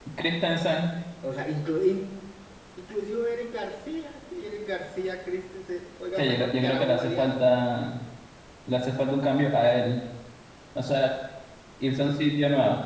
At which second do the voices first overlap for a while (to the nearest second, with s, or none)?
6 s